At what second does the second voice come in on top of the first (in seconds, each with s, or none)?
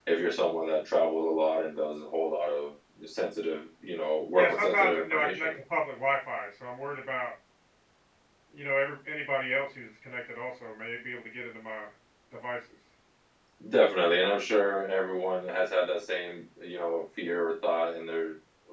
4.3 s